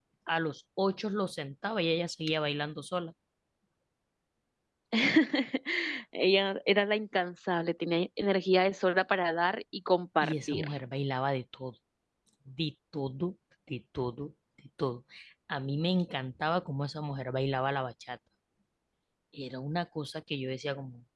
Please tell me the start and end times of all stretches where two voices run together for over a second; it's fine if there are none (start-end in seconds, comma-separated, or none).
none